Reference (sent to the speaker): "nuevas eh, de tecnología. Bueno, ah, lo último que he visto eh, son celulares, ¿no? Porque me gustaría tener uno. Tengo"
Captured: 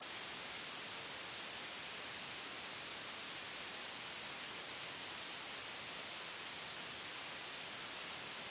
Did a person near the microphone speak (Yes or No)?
No